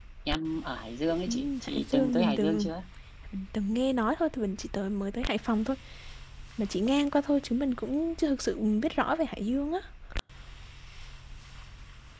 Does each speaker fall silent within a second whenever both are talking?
No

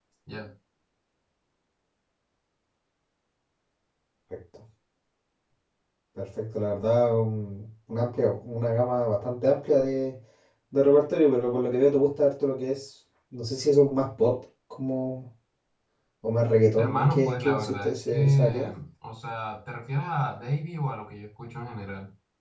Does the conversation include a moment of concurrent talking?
Yes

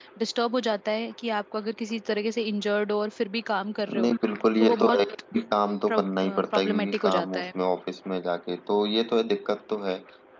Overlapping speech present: Yes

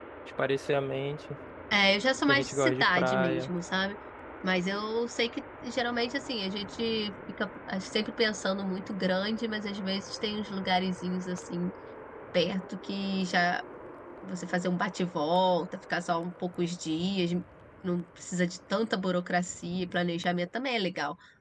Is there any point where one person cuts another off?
Yes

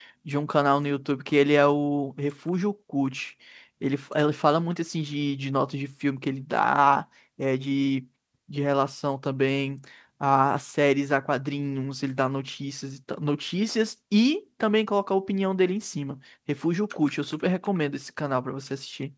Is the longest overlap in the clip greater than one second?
No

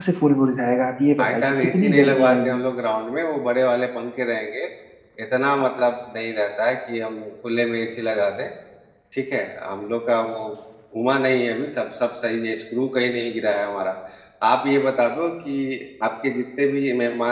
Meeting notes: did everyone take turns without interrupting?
No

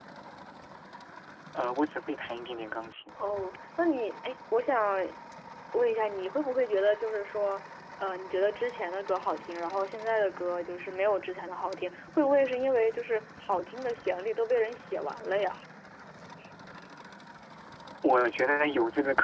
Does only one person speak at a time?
Yes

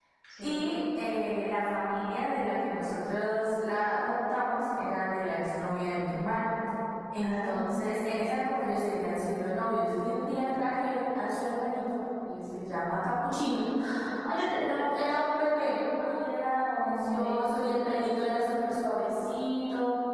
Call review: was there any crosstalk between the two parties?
Yes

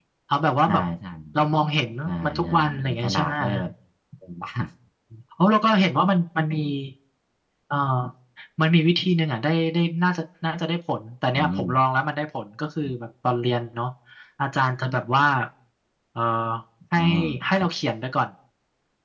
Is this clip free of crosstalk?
No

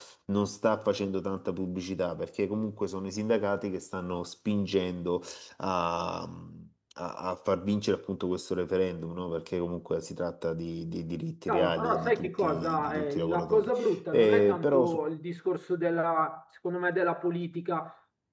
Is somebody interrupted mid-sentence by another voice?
Yes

